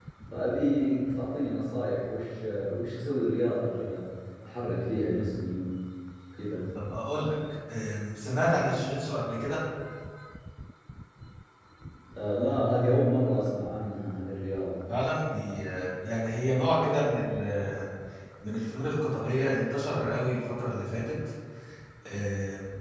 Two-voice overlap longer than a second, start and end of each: none

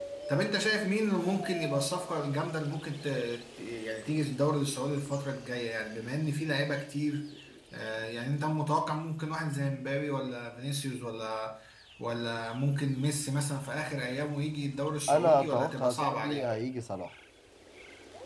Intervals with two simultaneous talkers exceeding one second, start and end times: 15.1-16.4

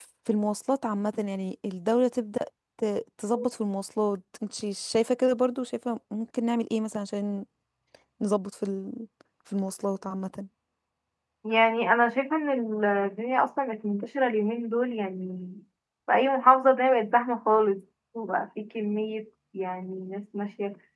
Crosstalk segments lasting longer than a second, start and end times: none

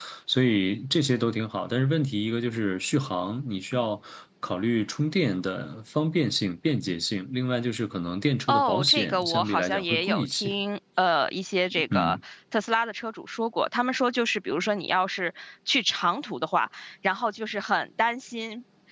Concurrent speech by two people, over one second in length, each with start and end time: 8.5-10.5

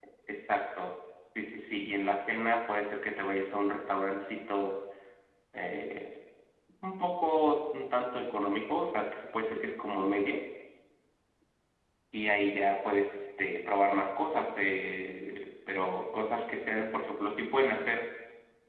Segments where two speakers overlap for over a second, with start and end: none

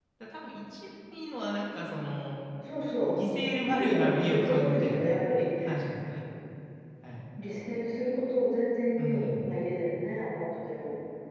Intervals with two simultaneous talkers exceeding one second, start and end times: 3.6-5.0

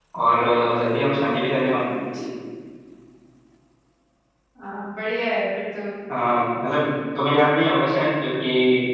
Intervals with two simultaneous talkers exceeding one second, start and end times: none

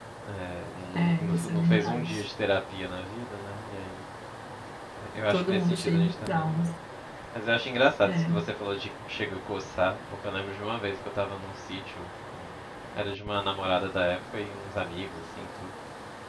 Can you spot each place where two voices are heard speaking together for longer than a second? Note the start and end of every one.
1.0-2.2, 5.3-6.7

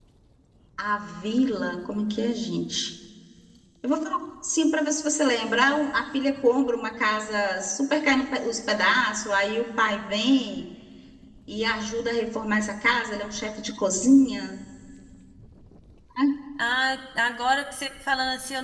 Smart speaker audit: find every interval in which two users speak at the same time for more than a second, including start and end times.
none

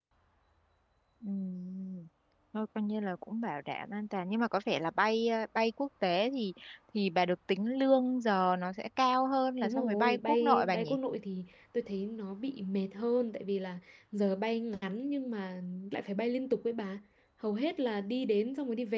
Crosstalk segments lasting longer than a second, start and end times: 9.6-11.0

